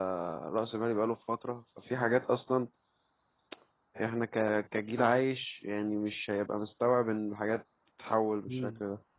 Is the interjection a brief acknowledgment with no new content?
No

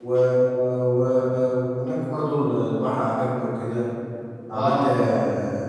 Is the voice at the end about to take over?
No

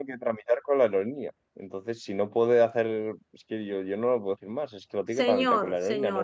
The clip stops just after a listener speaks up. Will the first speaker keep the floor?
No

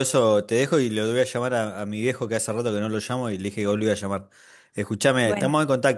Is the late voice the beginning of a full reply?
No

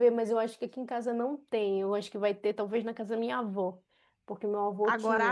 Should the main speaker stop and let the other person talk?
Yes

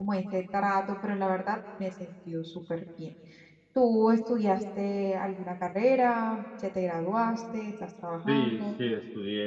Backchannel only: No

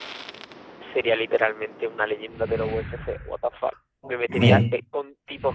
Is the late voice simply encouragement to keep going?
Yes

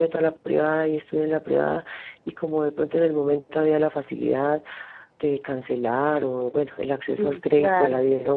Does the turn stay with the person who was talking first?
Yes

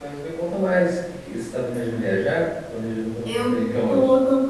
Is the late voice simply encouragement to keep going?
No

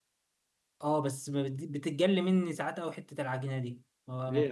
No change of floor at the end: No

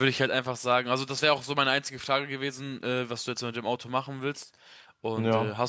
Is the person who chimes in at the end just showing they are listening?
Yes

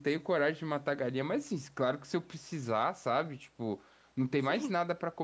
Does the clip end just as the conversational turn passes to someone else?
No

